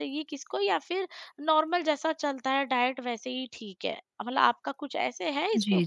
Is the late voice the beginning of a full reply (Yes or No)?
Yes